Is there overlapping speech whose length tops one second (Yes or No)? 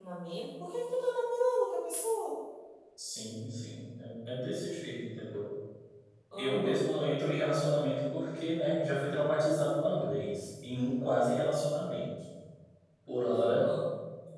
No